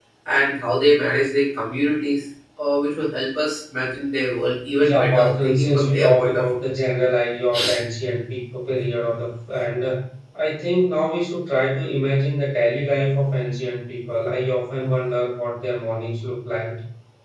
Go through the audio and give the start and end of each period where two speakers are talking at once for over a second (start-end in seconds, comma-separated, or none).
4.8-6.4